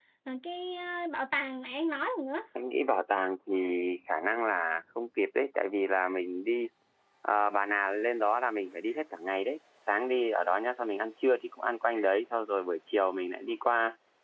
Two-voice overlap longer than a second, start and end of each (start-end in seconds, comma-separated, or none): none